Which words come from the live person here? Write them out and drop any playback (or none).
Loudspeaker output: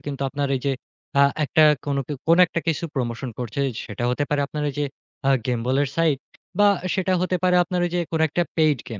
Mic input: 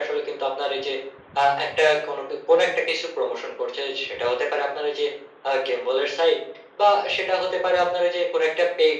none